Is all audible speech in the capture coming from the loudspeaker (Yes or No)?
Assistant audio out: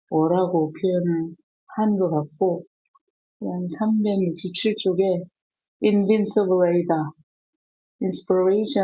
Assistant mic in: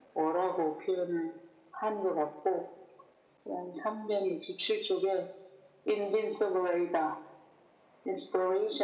Yes